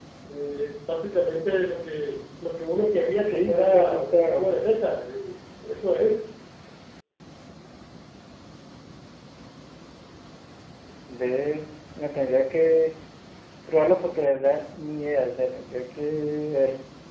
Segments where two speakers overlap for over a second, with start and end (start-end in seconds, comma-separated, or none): 3.2-4.5